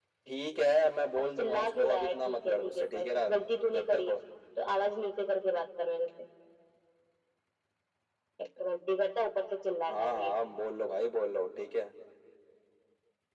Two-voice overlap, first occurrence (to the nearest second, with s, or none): 1 s